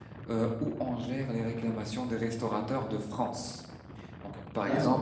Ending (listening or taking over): listening